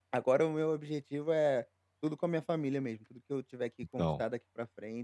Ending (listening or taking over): listening